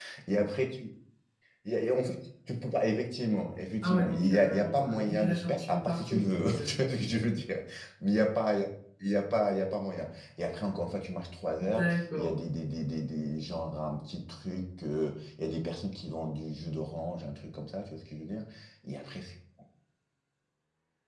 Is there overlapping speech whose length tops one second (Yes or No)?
Yes